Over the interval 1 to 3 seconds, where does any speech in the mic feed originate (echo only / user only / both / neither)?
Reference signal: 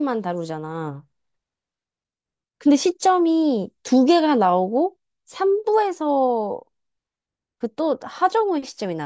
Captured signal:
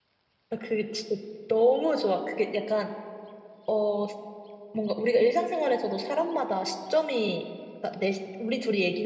user only